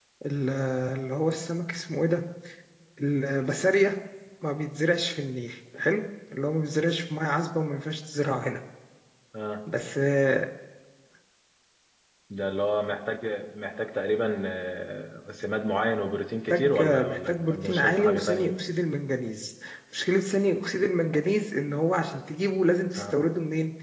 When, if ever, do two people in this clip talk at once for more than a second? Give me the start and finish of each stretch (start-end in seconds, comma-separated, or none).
16.5-18.5